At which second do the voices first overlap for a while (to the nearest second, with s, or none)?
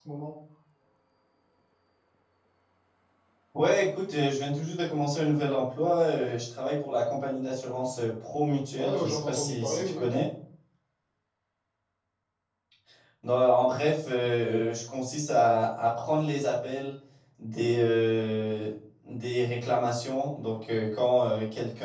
9 s